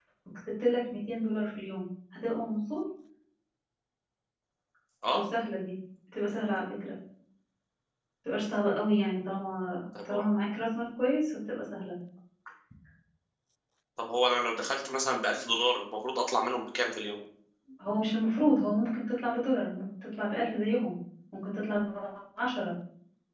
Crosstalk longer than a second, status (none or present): none